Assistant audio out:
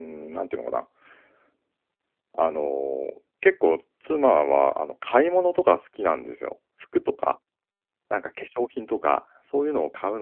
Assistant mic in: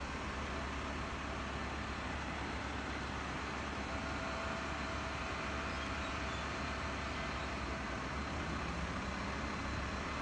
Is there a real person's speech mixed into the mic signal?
No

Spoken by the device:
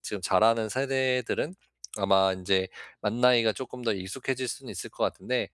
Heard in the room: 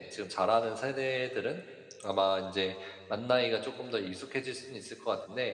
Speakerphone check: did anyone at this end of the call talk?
No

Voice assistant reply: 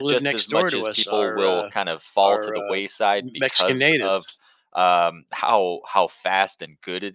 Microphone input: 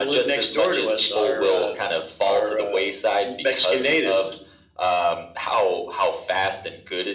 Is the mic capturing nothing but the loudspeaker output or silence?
Yes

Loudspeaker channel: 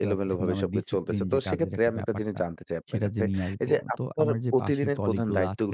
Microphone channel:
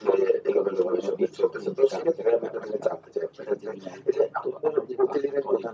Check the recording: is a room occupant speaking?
No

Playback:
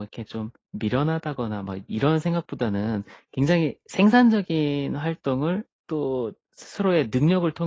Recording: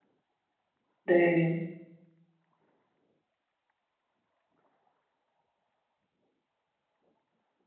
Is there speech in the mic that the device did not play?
Yes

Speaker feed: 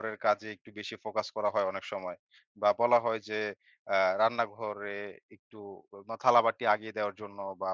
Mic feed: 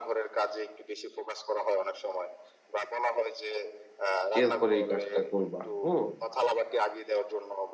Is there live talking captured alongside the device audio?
Yes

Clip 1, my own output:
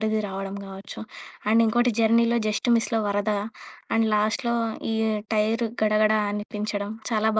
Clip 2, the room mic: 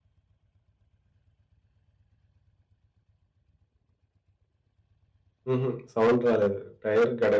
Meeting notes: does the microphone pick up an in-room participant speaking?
Yes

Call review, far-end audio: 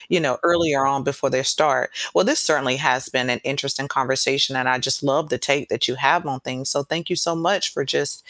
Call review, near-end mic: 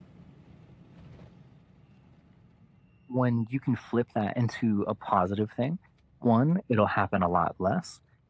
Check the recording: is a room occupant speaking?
Yes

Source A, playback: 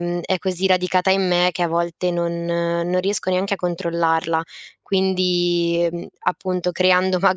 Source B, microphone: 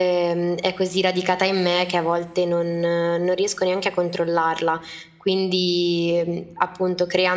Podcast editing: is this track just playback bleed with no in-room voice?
Yes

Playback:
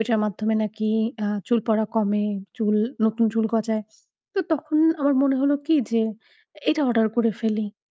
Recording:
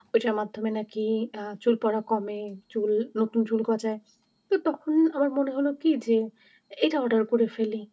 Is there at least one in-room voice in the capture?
No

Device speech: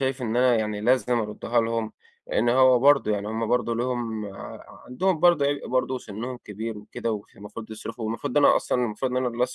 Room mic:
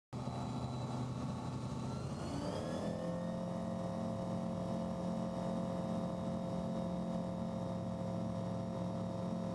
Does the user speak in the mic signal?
No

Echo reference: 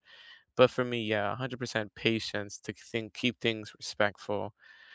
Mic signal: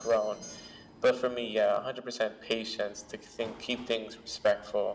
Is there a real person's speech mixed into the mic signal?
No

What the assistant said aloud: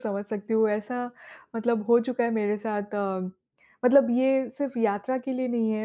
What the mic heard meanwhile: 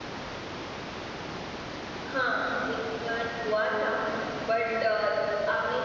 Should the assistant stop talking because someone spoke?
Yes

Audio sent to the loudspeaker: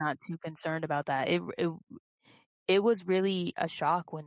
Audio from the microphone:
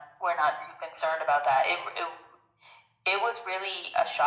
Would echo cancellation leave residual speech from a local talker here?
No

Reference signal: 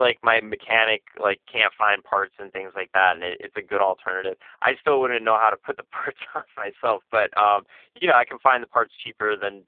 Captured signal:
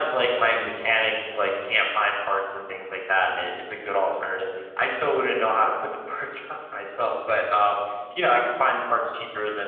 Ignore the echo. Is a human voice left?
No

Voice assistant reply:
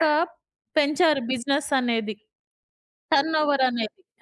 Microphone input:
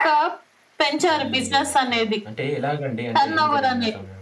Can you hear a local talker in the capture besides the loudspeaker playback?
Yes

